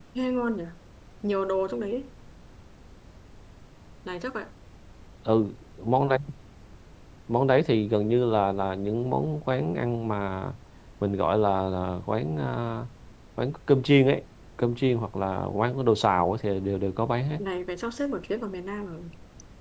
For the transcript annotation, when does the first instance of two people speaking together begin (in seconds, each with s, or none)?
none